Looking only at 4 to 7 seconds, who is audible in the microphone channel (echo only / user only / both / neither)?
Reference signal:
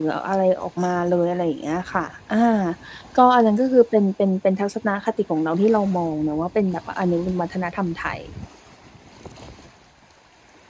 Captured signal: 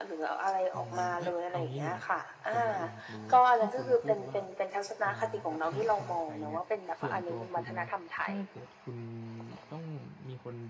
both